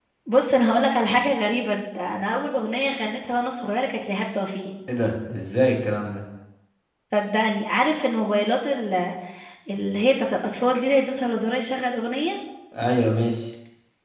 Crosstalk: none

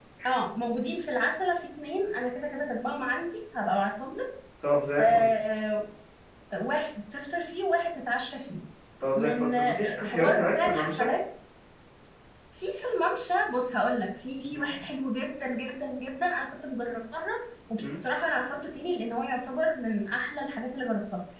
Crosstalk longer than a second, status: present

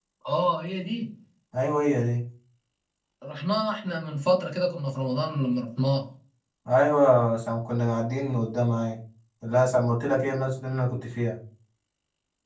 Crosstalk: none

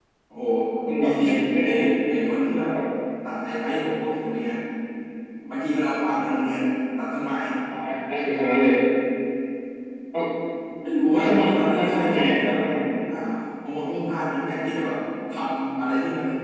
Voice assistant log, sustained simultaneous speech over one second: present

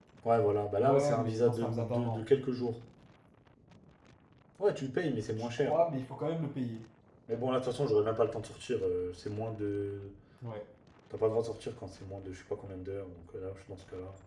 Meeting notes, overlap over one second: present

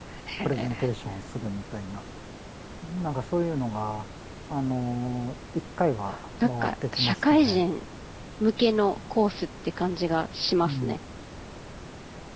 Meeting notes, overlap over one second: present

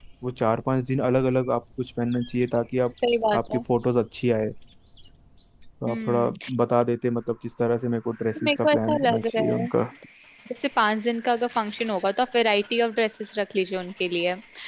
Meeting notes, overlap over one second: present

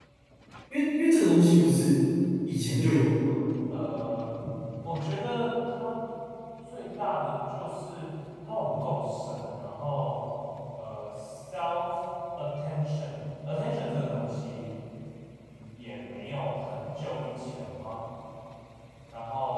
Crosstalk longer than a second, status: none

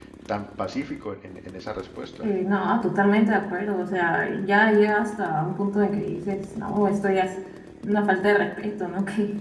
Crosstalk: none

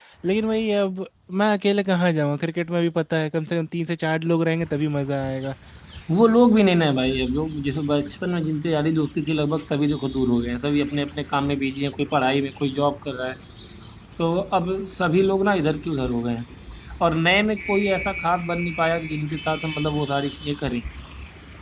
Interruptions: none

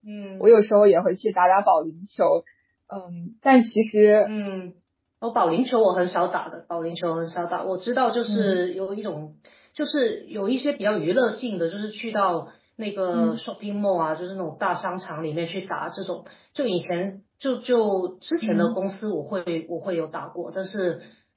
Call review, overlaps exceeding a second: none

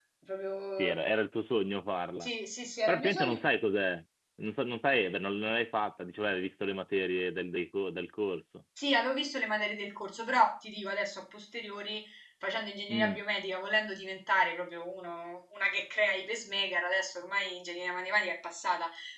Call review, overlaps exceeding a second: none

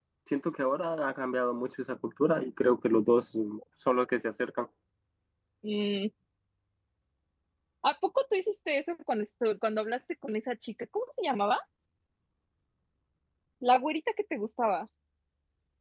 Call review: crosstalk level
none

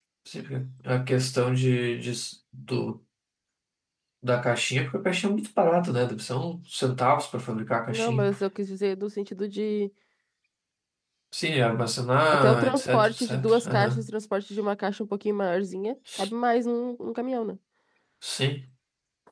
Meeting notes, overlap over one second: present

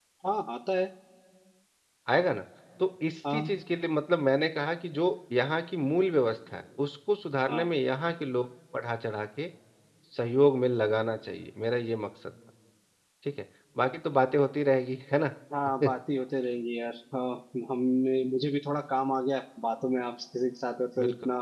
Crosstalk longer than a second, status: none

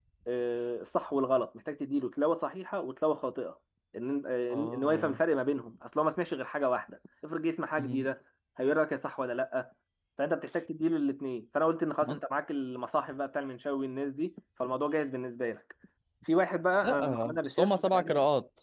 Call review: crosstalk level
present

